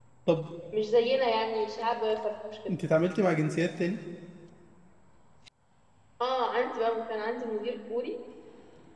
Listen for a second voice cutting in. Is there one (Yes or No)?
No